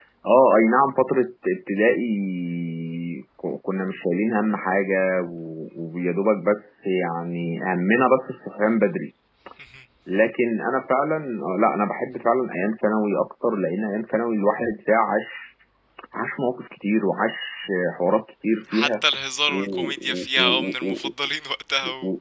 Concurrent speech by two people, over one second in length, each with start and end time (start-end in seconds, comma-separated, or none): 19.5-21.1